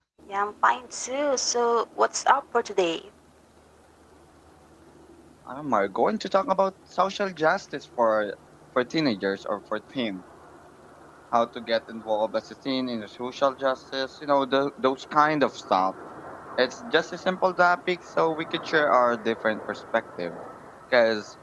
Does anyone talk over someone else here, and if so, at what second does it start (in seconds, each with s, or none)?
none